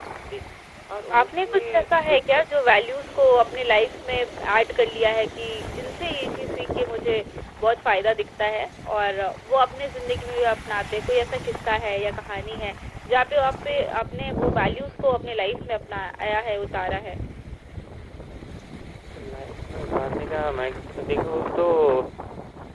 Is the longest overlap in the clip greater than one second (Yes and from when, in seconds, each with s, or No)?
Yes, from 1.1 s